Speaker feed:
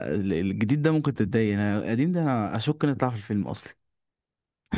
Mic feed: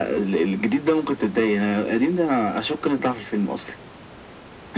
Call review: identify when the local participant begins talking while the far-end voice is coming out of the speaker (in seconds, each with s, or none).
none